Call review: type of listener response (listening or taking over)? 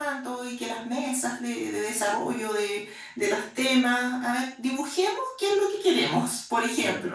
taking over